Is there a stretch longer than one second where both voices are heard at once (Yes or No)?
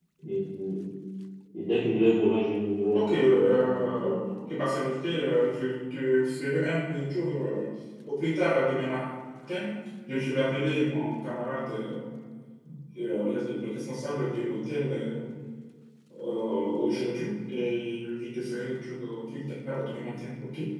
Yes